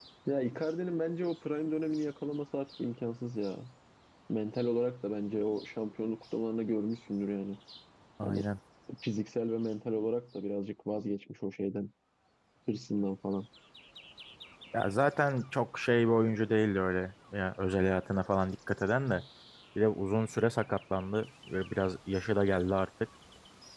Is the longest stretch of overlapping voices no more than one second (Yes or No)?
Yes